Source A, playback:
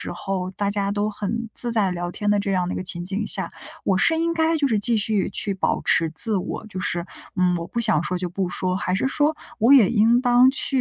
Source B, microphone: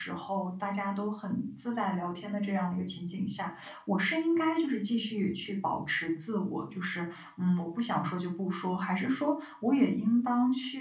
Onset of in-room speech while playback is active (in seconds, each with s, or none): none